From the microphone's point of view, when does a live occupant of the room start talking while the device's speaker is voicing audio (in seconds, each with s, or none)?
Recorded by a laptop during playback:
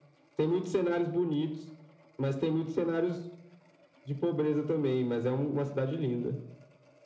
none